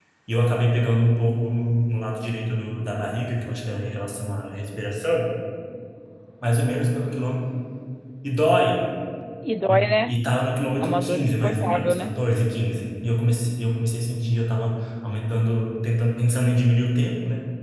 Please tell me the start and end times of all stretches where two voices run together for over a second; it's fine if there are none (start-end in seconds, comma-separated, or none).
10.8-12.1